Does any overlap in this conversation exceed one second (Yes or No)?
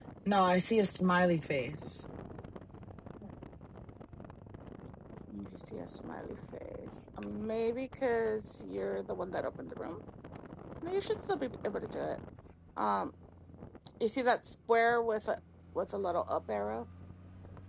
No